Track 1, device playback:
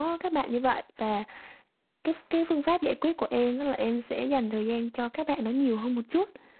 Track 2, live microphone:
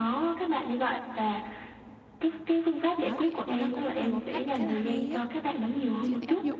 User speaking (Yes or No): Yes